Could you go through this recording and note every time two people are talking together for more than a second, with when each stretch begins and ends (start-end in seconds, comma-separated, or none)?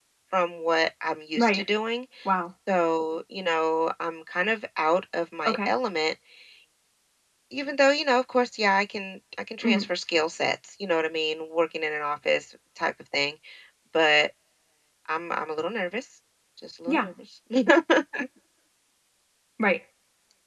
none